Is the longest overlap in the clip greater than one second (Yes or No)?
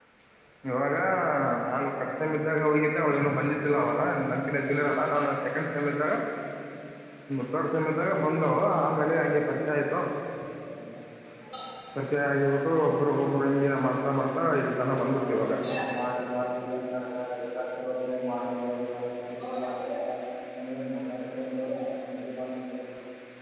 No